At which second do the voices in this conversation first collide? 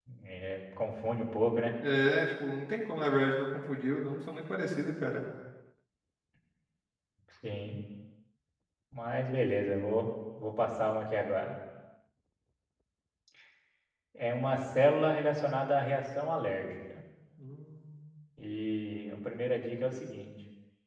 none

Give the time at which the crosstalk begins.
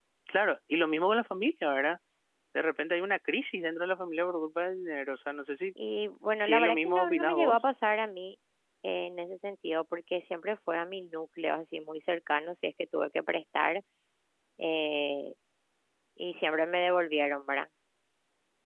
6.4 s

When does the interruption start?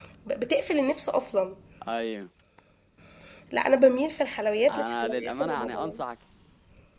4.7 s

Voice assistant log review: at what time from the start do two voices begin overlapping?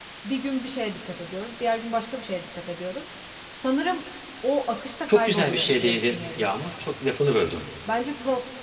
5.1 s

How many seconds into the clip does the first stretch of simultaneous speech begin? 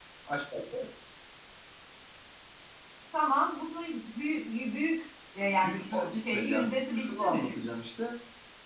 5.4 s

